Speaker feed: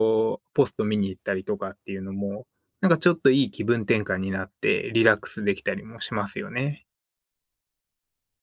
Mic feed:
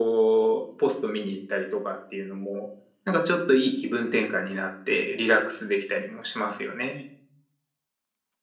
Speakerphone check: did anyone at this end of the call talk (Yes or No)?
No